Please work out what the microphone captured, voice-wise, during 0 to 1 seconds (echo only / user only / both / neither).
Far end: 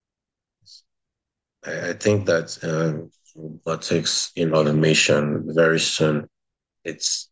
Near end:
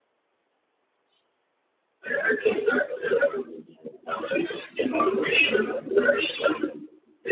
neither